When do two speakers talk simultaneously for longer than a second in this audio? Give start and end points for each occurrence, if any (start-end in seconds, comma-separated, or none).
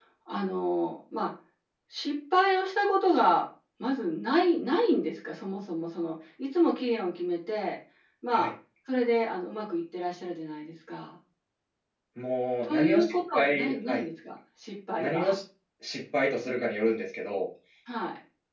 12.6-14.0